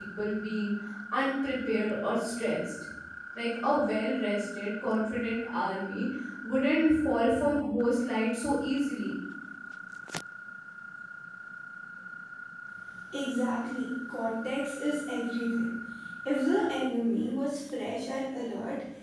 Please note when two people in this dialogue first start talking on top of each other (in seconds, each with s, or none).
none